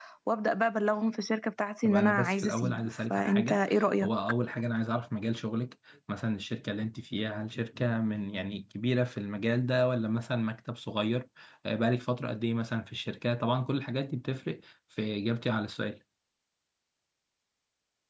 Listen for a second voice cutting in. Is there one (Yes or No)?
Yes